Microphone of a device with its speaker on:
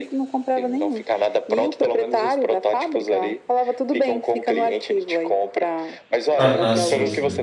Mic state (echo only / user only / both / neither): both